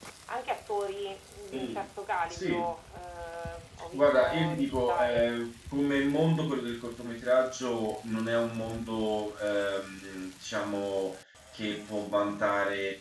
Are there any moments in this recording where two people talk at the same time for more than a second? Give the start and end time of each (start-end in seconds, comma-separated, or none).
3.9-5.3